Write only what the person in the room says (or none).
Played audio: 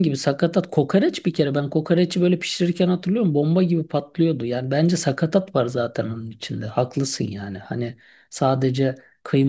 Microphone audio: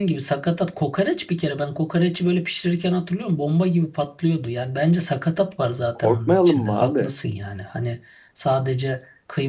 Korkmayalım mı abi?